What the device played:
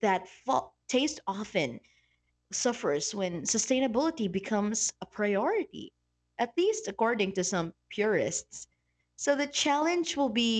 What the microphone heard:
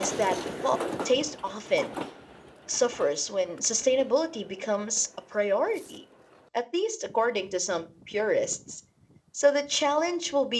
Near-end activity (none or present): none